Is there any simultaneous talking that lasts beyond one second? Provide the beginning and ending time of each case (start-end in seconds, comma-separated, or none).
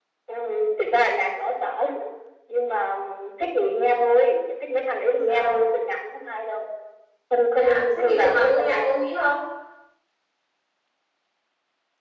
7.5-9.0